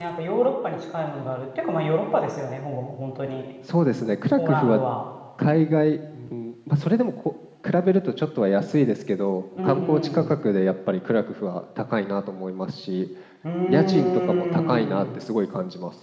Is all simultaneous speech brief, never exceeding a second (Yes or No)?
No